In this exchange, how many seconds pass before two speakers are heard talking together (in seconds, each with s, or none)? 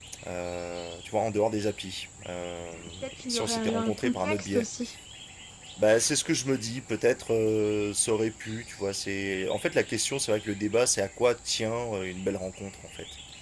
3.3 s